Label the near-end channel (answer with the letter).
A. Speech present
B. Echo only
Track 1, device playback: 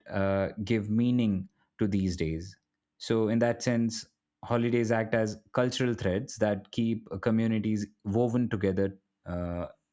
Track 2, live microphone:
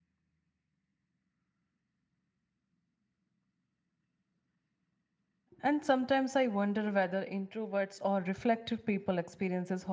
A